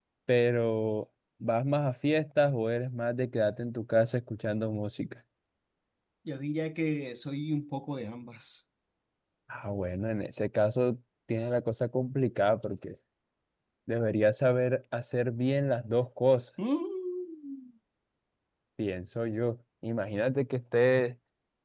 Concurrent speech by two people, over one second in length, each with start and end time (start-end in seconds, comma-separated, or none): none